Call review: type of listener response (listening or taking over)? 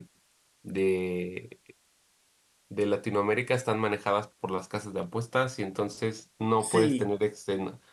listening